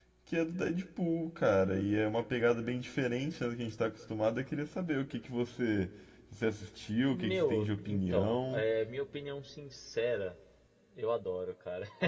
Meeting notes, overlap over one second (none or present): present